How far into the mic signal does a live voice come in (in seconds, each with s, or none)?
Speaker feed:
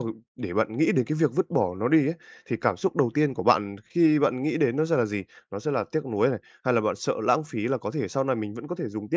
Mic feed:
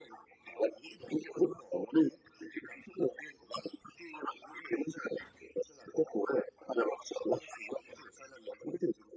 none